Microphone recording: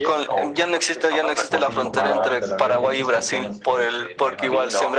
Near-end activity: present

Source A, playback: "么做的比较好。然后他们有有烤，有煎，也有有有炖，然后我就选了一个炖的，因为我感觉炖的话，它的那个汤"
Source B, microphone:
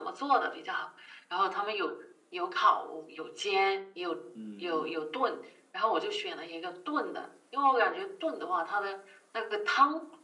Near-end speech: present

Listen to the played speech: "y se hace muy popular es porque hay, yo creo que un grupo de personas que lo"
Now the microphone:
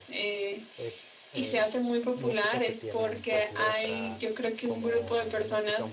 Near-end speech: present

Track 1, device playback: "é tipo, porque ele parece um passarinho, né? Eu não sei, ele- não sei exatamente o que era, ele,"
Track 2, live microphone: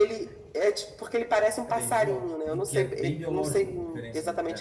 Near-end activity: present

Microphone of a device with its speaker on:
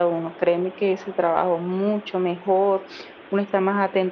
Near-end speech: none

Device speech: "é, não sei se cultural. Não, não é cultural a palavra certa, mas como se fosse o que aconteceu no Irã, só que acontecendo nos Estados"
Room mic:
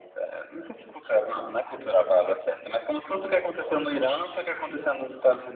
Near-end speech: none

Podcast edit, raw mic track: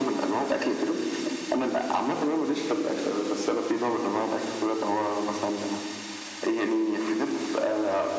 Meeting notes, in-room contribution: none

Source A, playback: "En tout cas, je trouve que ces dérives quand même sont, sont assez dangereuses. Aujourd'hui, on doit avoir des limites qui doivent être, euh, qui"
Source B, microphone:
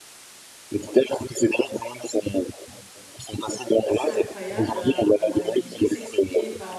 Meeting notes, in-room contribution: present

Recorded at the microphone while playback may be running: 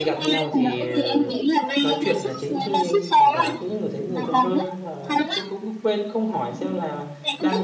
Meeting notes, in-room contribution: present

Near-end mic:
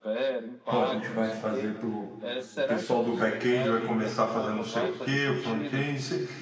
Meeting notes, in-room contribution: present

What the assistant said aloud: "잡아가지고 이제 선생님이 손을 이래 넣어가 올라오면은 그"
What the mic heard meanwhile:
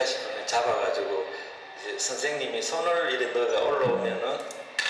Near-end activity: present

